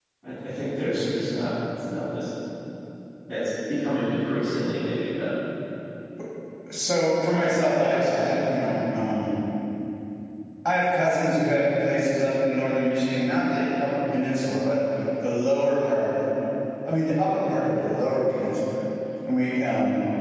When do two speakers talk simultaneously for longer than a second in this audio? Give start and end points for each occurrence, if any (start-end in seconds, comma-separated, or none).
7.2-8.5